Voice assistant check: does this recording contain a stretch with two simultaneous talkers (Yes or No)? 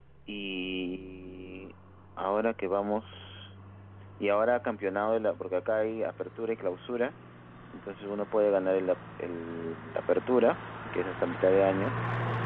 No